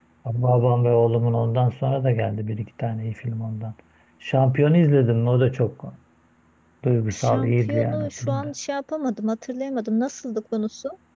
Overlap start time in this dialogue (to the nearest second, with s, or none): 7 s